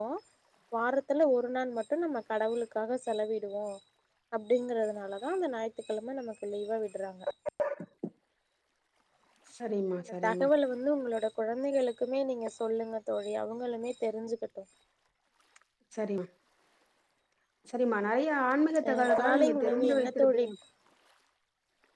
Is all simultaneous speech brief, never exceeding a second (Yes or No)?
No